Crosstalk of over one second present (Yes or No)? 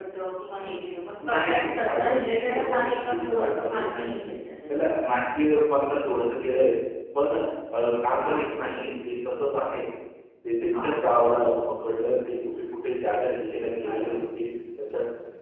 Yes